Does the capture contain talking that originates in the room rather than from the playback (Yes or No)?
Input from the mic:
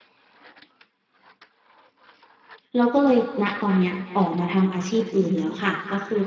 Yes